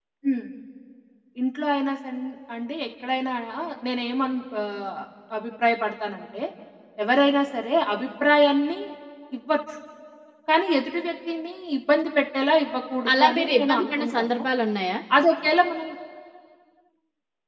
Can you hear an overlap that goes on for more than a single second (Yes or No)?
Yes